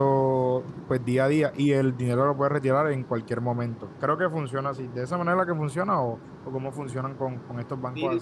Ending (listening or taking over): taking over